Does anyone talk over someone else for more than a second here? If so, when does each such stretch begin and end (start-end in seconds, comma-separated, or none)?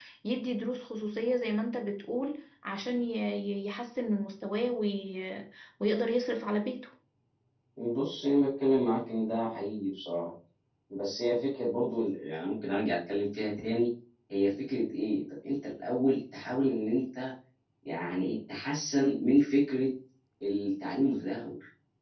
none